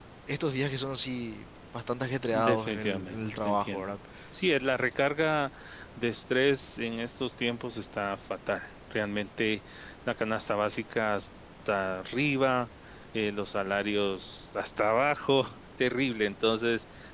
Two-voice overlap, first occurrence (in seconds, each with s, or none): 2.3 s